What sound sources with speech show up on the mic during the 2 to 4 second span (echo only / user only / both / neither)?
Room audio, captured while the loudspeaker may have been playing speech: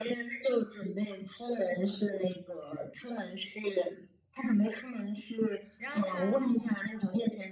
echo only